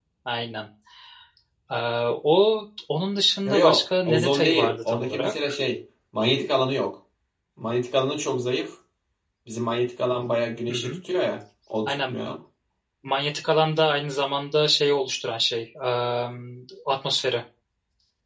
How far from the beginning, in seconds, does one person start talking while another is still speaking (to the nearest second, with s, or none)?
3 s